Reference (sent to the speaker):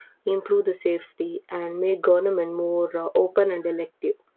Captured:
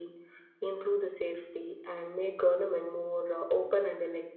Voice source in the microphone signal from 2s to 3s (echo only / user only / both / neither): echo only